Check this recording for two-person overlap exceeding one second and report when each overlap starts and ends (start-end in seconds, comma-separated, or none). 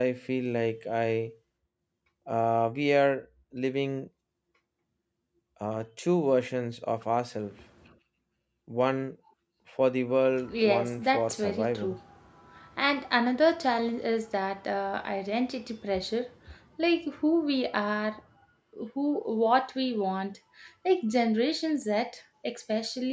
10.5-12.0